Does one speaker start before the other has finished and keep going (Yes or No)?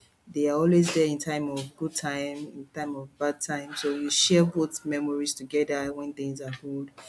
No